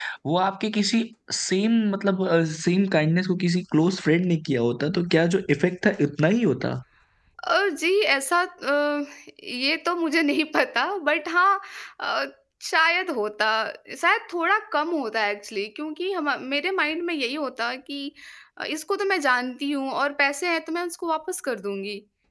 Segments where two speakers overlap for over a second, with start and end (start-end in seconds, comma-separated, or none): none